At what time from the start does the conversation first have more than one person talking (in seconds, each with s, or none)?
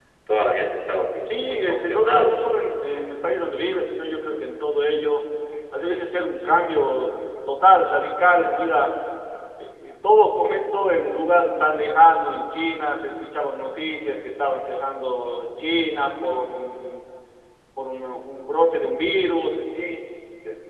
1.1 s